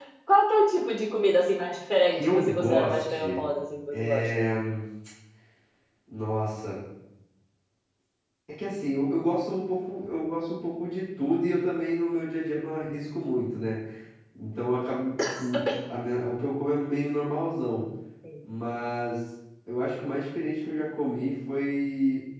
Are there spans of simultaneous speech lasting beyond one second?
Yes, from 2.1 s

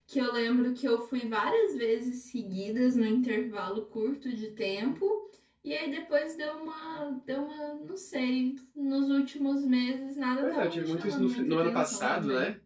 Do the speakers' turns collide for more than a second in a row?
Yes, from 10.4 s

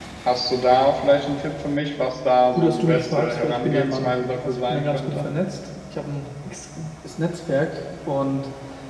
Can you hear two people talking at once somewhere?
Yes, from 2.5 s

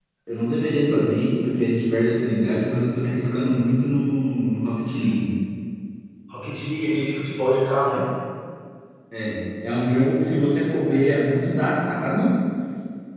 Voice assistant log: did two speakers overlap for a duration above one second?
No

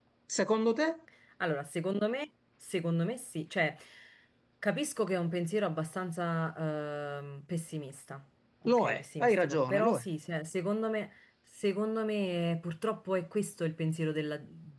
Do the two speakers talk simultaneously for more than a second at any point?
Yes, from 8.6 s

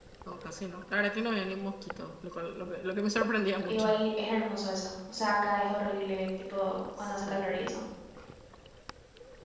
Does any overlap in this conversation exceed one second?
No

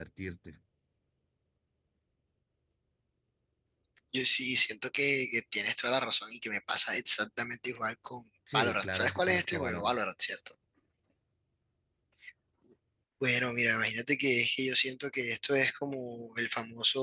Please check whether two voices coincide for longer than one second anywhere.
Yes, from 8.5 s

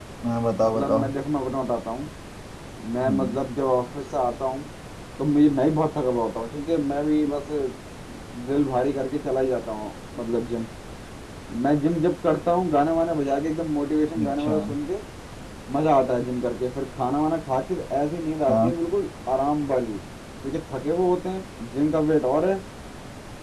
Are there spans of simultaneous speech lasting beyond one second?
No

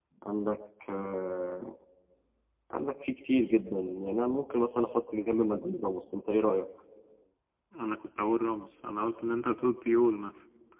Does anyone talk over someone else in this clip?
No

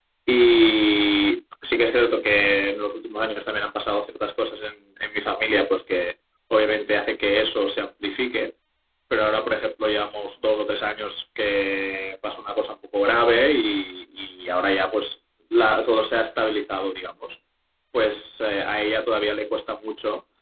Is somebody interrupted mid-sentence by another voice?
No

